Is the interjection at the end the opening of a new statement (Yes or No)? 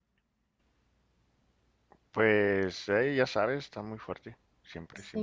Yes